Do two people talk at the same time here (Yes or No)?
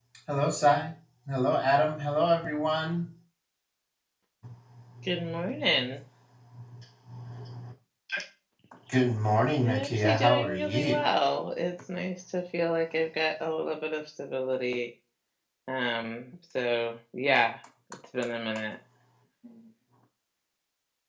Yes